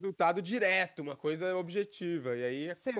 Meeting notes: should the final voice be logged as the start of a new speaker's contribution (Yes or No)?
Yes